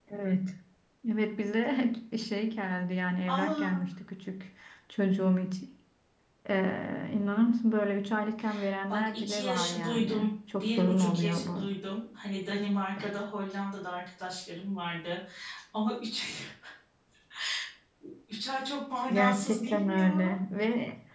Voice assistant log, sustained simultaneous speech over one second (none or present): present